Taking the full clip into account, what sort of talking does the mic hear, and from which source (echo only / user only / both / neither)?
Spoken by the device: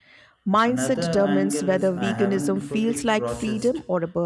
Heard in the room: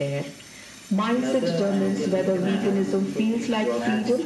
both